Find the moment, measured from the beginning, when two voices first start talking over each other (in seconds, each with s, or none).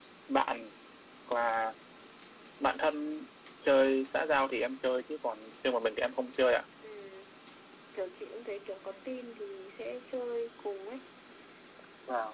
none